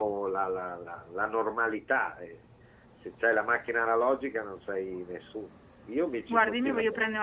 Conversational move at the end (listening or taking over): taking over